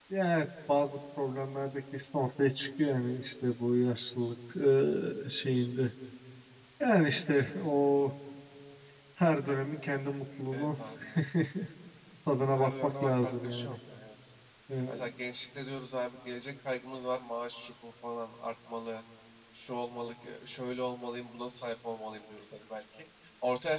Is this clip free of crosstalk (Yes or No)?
No